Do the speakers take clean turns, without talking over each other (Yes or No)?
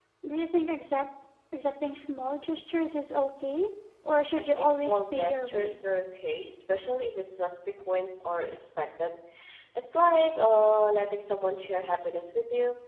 No